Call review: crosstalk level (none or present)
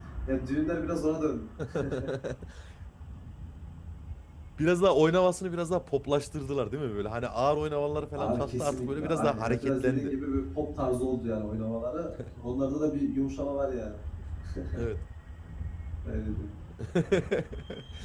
present